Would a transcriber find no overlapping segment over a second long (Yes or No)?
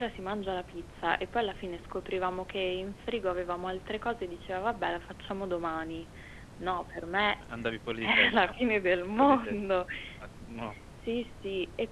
Yes